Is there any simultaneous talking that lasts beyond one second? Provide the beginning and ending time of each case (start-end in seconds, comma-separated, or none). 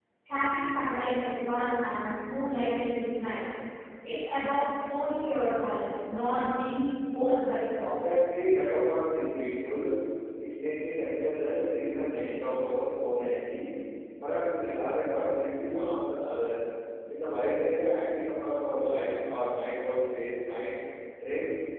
none